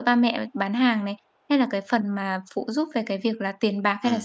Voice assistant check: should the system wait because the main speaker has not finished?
No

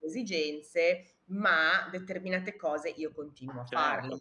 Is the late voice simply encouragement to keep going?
No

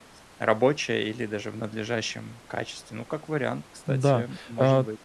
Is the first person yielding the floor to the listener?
Yes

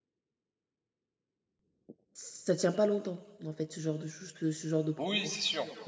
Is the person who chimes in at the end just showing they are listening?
No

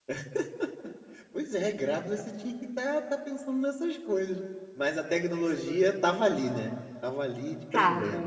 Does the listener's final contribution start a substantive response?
Yes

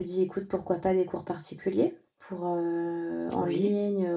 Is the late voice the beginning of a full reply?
No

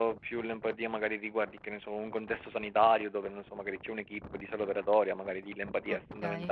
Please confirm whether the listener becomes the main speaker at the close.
Yes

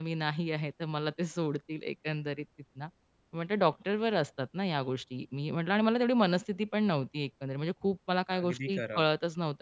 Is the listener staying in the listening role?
Yes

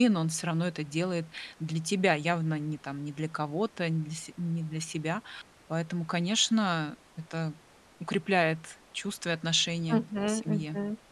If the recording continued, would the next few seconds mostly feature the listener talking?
Yes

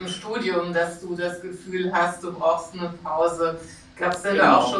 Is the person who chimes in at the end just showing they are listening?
Yes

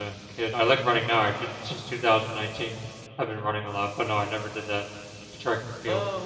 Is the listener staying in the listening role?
No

